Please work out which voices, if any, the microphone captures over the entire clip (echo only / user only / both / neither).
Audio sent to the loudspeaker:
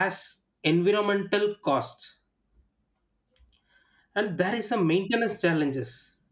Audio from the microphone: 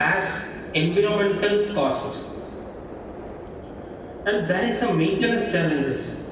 echo only